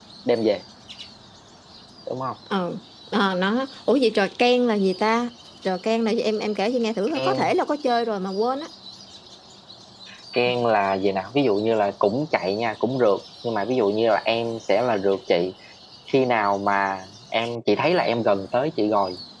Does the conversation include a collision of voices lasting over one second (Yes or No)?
No